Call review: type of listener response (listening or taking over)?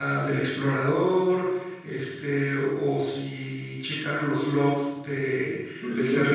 taking over